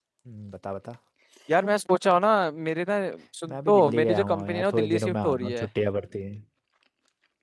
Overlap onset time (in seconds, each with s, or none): 3.5 s